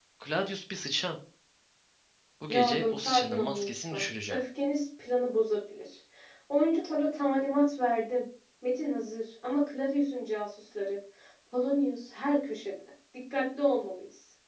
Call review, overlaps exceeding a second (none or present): present